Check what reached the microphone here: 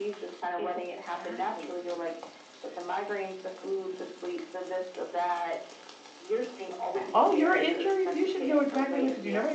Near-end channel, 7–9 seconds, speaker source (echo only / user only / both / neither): both